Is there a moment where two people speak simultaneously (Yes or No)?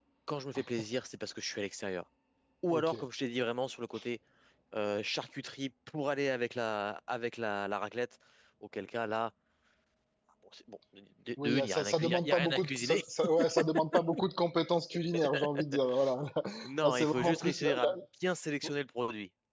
Yes